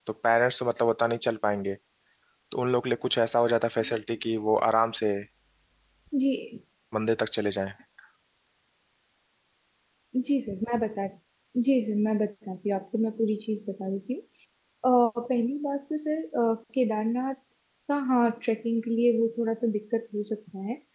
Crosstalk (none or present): none